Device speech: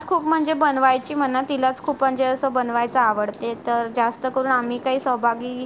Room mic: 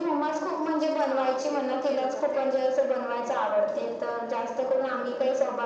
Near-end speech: present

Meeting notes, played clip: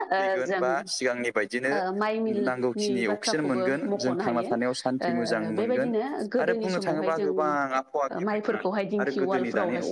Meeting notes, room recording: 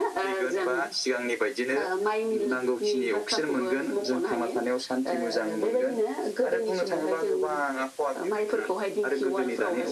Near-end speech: none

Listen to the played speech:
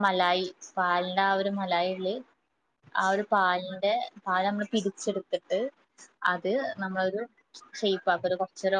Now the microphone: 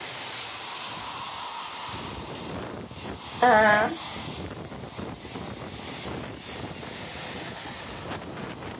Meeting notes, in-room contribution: present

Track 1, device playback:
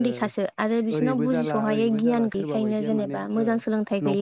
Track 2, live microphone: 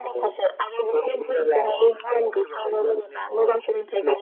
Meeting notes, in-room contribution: none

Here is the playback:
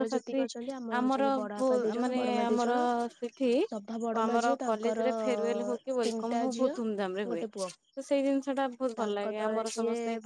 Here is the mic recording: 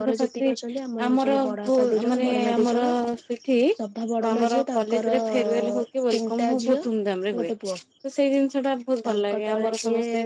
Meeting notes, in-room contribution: none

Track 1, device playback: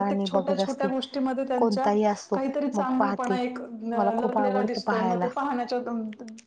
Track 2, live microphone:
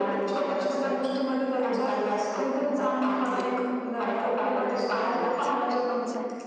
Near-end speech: present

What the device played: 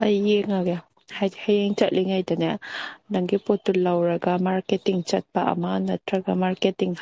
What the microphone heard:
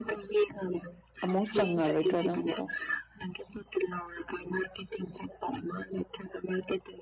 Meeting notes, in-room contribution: present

